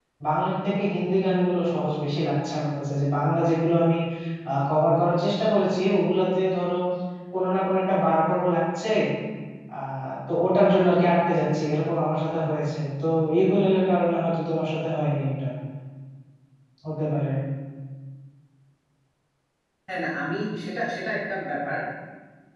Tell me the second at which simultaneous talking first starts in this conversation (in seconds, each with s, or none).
none